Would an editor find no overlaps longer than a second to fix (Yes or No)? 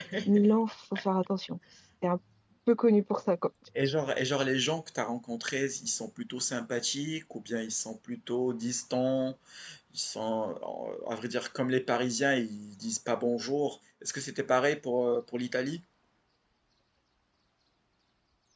Yes